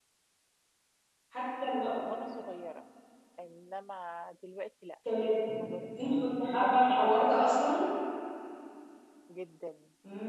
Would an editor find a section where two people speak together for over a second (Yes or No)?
Yes